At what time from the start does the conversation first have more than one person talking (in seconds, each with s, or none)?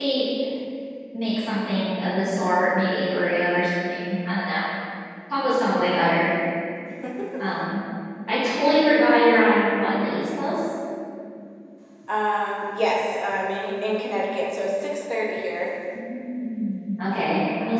none